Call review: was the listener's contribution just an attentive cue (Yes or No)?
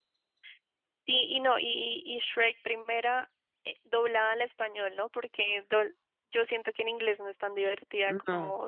Yes